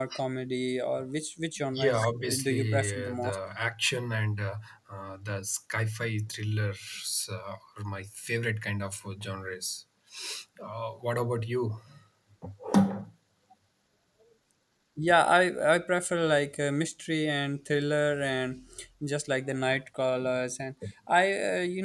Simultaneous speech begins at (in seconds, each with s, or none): 1.7 s